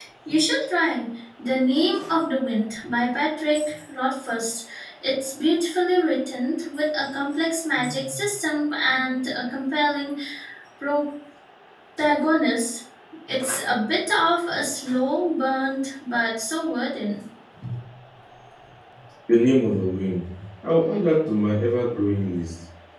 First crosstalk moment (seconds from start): none

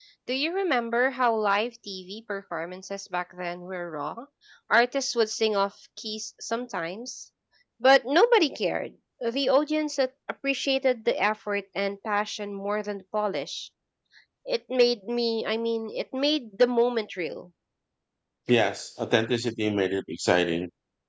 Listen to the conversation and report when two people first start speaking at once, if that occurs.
none

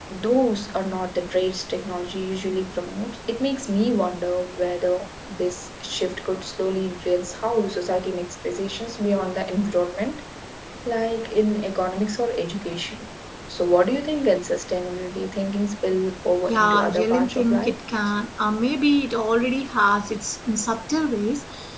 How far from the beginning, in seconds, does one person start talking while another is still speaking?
16.4 s

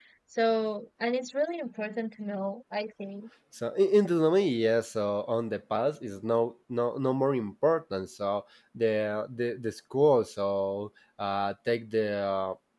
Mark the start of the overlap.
none

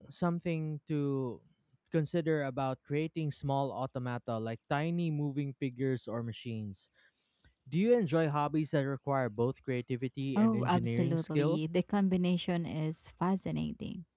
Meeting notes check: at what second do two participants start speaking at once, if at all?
10.3 s

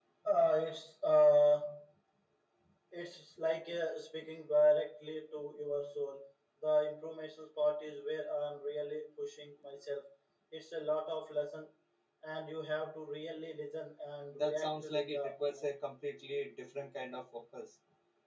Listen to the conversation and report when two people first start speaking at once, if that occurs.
14.3 s

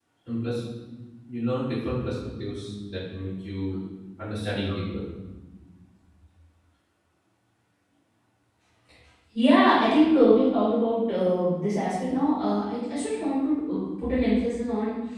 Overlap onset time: none

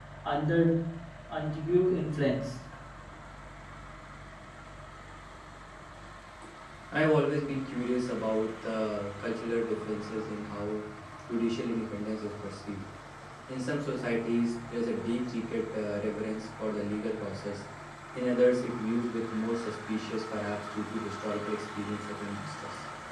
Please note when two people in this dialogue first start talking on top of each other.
none

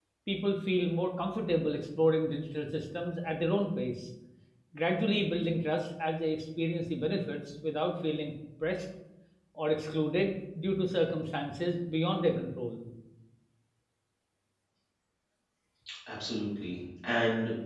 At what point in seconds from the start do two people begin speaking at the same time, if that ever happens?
none

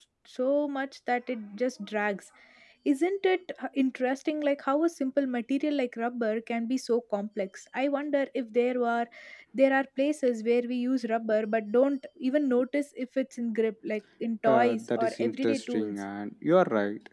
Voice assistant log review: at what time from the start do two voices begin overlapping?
14.4 s

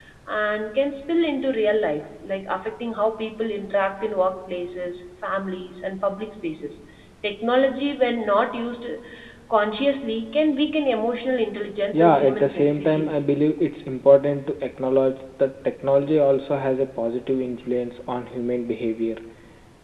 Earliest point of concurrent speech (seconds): 11.9 s

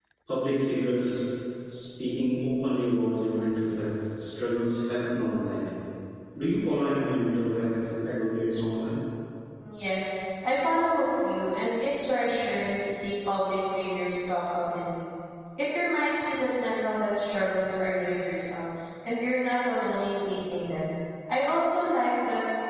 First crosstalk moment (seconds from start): none

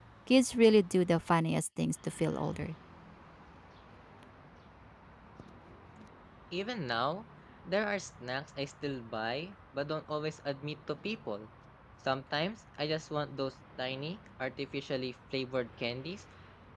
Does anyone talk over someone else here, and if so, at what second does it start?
none

